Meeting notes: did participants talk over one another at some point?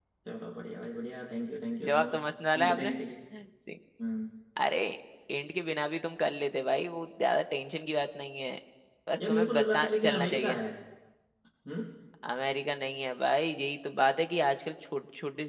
Yes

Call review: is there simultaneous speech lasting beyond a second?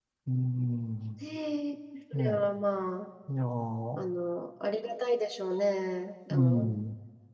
No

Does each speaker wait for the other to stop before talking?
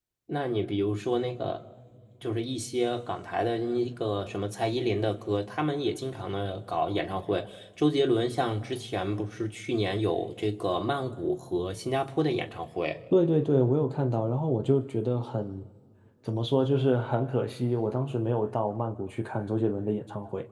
Yes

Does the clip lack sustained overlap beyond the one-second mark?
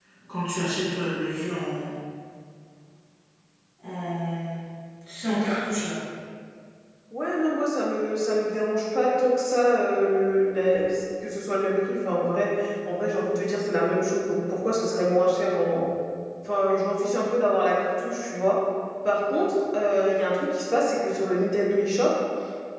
Yes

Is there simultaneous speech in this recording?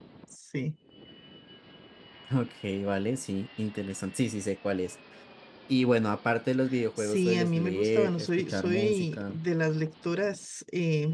Yes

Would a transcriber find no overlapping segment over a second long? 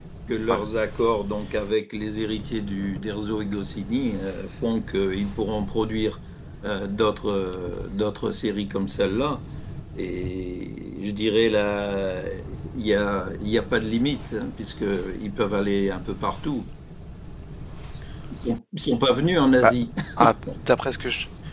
Yes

